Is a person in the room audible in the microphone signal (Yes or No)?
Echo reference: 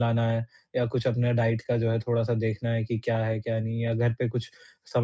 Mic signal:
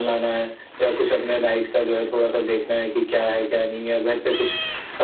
No